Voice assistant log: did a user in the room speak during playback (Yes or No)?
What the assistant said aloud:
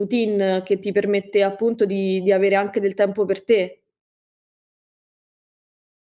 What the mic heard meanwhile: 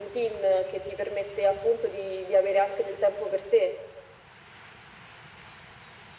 No